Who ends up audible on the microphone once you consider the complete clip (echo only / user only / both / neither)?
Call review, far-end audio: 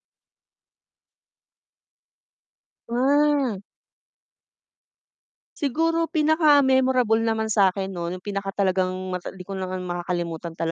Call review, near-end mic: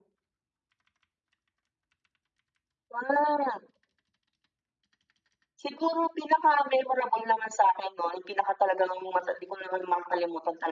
echo only